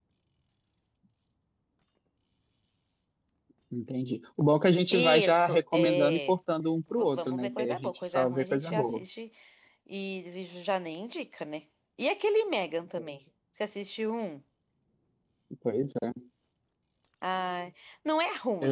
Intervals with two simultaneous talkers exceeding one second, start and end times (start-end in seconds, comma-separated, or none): 4.9-6.3, 6.9-9.0